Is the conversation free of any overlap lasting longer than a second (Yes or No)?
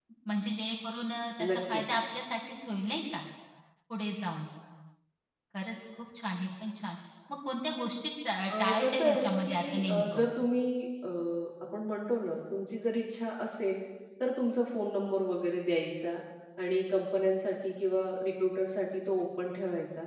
No